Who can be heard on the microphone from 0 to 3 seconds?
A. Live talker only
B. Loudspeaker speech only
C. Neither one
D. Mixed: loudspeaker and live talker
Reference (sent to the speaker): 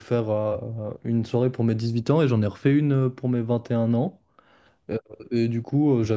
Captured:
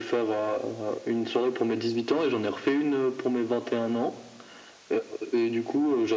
B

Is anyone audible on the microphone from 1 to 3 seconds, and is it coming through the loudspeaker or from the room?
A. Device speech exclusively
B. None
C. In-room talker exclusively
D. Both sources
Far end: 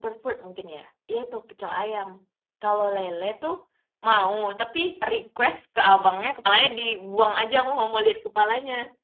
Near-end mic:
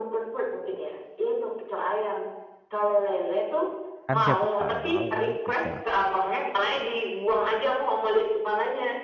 A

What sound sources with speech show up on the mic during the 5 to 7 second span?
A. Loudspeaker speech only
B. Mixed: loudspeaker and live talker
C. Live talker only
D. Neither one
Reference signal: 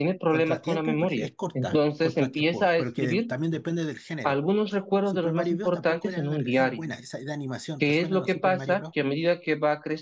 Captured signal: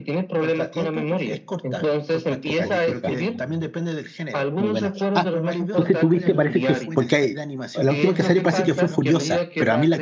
B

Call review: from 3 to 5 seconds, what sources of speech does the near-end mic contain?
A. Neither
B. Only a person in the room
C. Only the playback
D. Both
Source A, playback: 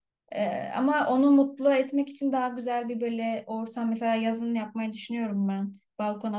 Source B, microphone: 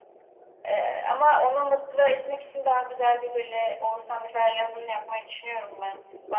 C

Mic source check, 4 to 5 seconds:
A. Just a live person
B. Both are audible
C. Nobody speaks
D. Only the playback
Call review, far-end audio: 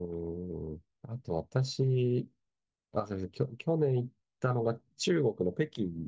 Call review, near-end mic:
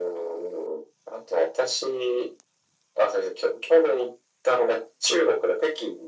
D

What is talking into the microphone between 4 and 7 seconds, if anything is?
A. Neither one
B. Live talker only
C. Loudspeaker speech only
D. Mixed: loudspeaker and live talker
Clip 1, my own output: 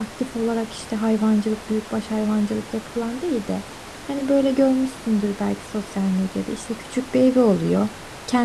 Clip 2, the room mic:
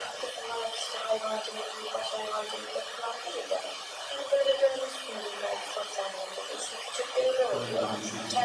C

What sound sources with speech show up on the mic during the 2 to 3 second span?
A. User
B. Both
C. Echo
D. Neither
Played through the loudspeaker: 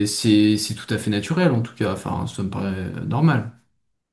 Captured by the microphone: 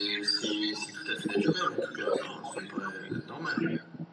C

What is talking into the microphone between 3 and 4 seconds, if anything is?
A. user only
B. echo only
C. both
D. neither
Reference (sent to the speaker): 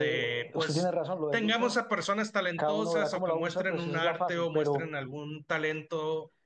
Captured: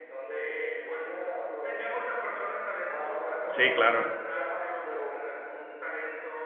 C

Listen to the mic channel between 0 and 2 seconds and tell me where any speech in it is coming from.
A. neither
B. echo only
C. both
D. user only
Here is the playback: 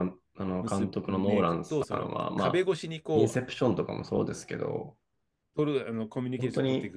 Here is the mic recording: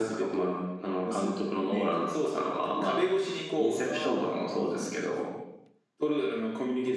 B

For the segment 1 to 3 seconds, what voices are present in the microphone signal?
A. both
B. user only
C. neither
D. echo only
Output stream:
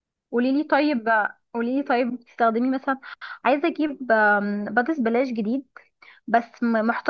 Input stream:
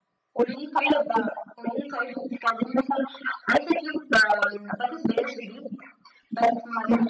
D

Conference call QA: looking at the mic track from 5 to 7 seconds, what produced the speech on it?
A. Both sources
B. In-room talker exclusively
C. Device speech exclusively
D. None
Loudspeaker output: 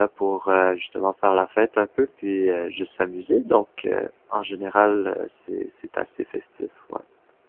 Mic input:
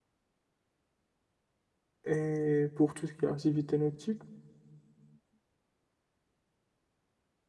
D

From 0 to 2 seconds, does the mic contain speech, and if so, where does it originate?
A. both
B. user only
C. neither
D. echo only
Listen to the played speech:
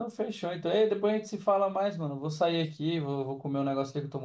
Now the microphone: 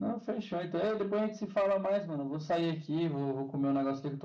D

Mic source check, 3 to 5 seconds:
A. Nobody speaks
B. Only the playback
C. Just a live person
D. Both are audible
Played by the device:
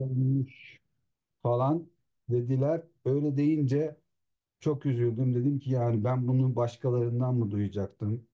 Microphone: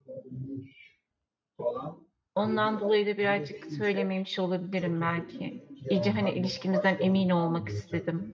D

